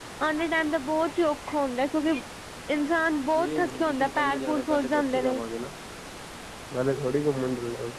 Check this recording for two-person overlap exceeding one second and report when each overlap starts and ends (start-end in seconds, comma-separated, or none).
3.4-5.4